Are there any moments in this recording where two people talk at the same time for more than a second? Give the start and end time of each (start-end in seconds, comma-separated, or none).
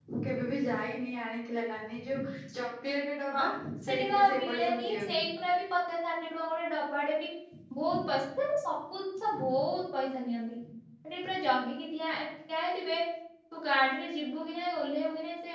3.9-5.2